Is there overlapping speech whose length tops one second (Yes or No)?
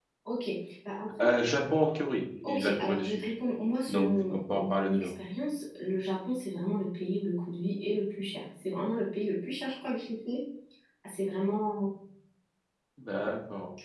Yes